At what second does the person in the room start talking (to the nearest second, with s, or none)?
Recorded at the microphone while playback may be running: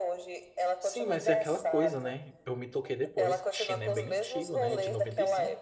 1 s